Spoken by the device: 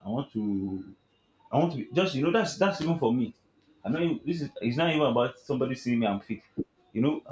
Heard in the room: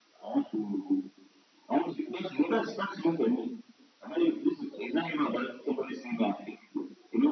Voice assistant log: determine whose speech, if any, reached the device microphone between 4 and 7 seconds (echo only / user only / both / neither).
echo only